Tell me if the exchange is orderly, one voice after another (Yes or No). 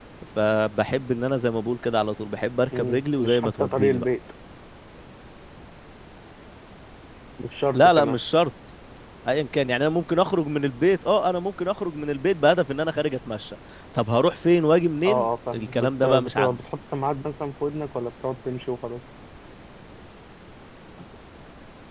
No